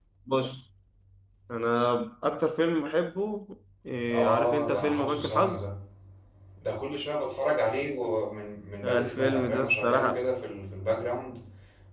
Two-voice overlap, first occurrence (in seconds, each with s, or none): 4.1 s